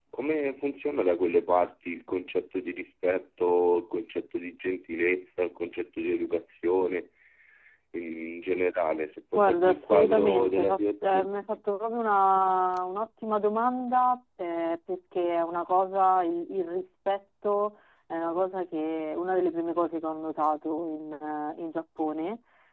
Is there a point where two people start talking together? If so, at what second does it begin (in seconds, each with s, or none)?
9.3 s